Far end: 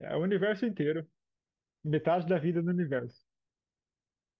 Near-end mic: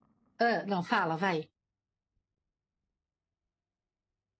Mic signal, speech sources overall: user only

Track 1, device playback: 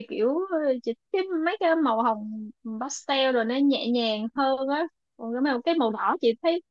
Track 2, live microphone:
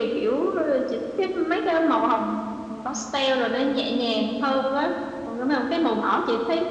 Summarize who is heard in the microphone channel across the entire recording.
echo only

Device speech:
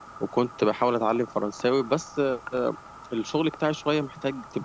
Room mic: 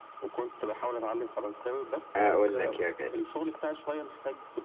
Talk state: both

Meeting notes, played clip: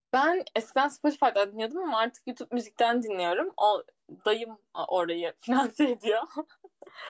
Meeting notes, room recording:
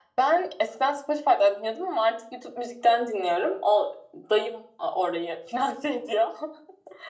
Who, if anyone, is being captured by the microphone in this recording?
echo only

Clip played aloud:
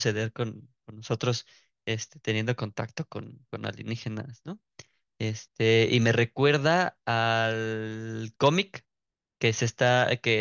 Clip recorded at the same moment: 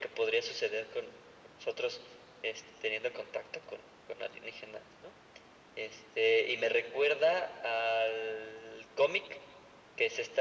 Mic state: echo only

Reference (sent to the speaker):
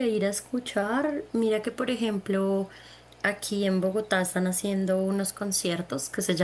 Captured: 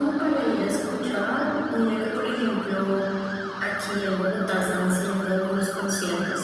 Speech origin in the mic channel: echo only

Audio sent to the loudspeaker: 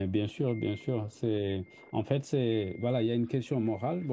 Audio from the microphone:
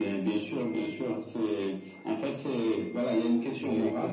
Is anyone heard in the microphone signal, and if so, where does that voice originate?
both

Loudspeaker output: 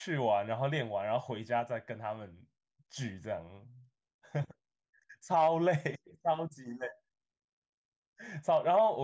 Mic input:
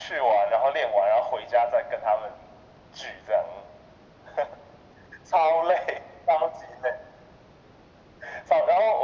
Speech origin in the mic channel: echo only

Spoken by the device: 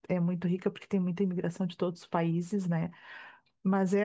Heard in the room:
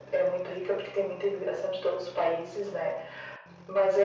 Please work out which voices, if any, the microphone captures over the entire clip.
echo only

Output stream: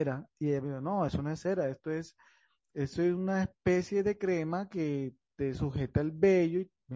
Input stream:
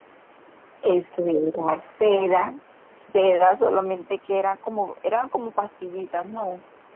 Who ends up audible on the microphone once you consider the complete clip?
user only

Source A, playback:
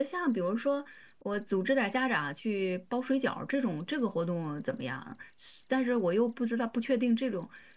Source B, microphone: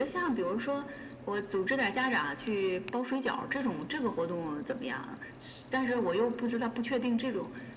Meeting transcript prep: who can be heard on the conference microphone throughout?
echo only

